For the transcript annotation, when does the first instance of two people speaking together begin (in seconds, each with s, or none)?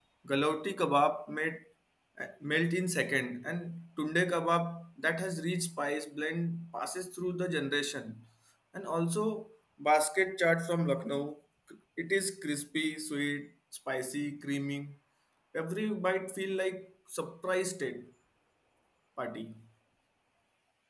none